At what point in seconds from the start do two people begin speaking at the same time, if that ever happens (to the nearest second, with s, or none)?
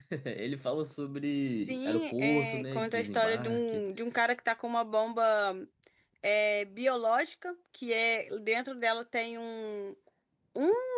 2 s